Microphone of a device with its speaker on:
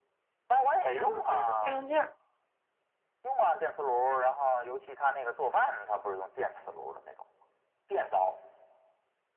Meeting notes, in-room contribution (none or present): present